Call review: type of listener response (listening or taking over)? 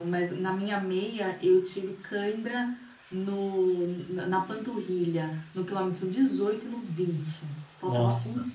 listening